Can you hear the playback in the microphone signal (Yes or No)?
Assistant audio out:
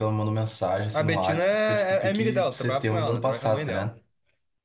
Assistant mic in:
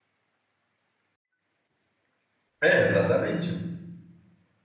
No